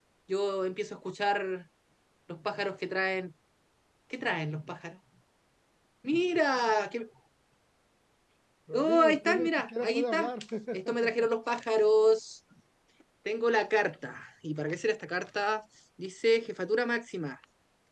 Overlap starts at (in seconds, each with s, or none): 8.7 s